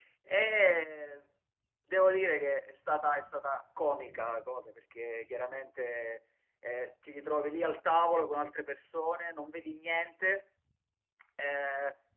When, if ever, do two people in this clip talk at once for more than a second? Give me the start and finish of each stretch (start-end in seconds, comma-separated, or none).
none